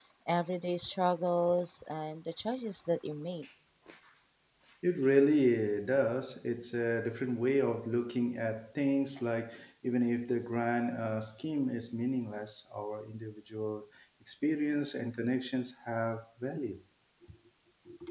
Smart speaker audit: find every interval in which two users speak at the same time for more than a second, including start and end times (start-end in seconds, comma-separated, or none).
none